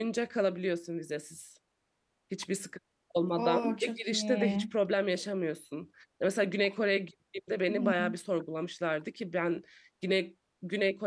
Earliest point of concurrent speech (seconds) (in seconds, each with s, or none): 3.4 s